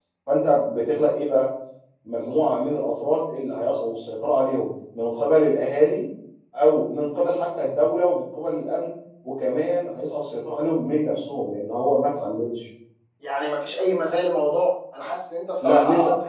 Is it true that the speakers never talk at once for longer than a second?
Yes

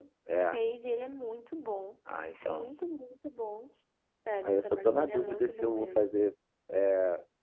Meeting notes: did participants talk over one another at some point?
Yes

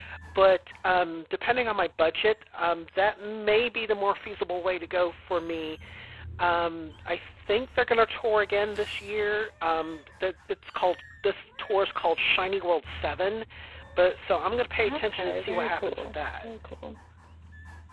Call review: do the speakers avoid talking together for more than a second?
No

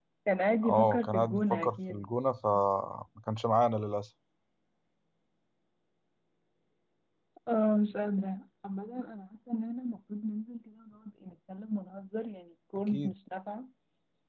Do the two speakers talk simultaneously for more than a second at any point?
Yes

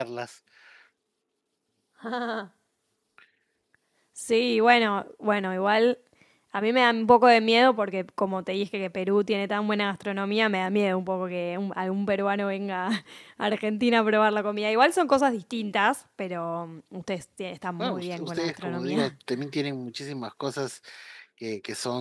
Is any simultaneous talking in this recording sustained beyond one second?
Yes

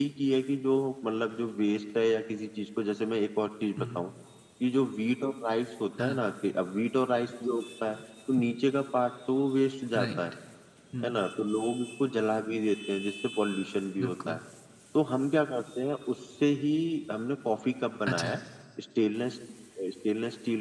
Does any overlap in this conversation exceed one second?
No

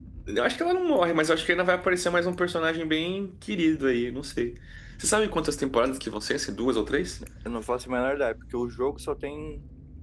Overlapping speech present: No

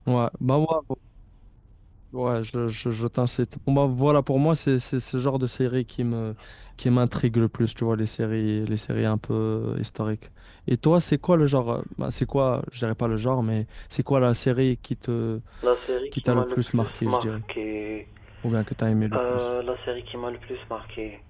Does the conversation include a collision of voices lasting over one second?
Yes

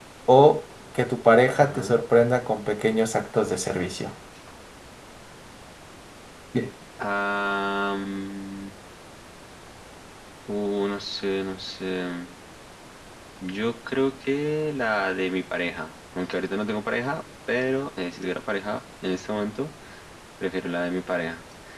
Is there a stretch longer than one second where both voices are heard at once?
No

